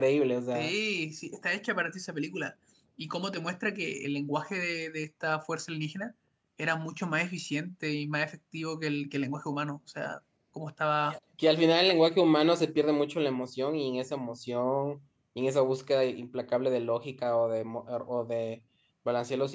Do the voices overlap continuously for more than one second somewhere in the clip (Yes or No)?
No